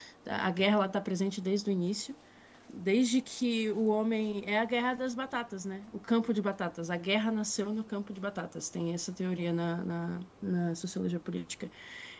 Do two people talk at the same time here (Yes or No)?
No